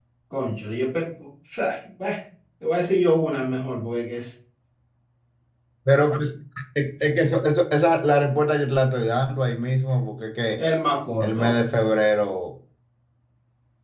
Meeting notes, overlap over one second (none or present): none